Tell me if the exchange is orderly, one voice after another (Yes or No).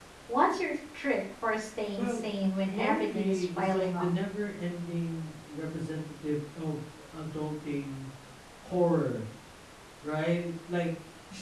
No